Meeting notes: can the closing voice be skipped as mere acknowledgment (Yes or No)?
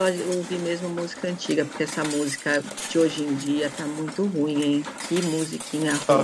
Yes